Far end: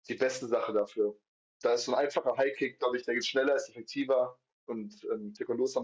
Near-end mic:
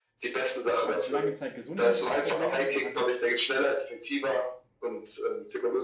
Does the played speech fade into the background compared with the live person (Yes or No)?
No